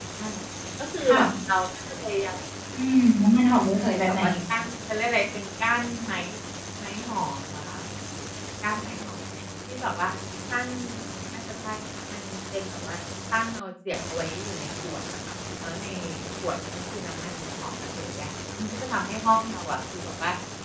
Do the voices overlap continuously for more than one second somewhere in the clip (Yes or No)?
No